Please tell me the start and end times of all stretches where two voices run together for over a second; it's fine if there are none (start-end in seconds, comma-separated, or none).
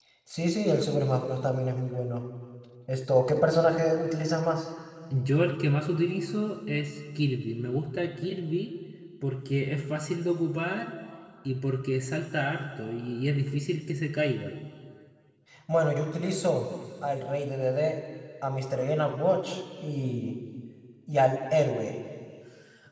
none